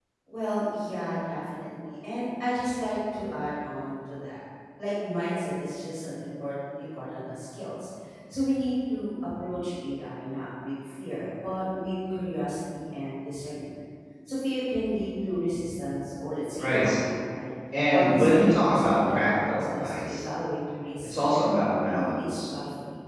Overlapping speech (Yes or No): Yes